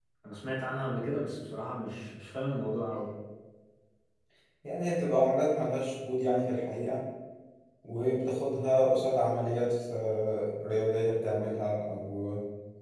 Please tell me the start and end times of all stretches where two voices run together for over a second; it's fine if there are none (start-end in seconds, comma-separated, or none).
none